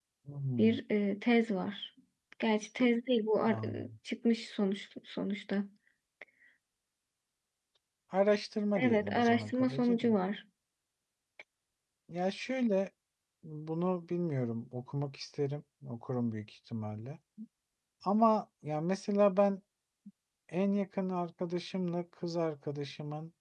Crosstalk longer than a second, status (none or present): present